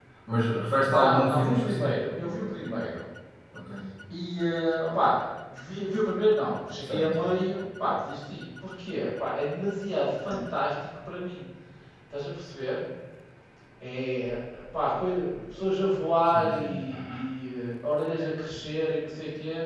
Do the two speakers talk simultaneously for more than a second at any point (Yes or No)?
Yes